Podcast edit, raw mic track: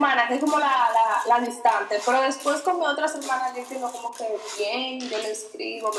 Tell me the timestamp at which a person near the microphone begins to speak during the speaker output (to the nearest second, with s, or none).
none